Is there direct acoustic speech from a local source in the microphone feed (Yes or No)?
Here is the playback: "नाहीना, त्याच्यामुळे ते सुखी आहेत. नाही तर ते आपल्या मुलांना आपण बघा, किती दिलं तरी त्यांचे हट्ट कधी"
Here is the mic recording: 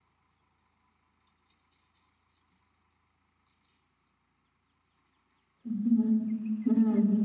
Yes